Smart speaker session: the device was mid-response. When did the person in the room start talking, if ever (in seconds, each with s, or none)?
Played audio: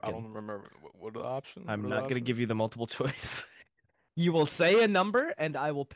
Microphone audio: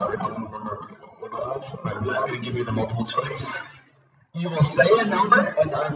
none